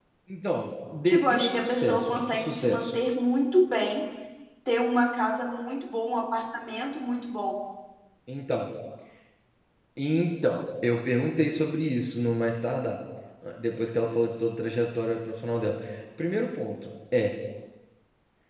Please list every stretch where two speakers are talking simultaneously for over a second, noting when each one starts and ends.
1.0-2.9

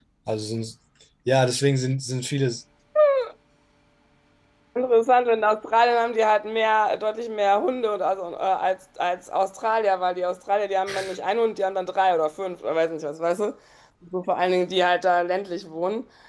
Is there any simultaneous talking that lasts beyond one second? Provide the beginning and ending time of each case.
none

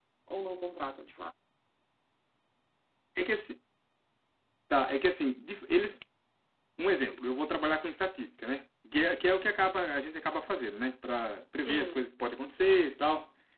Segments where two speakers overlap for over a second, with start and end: none

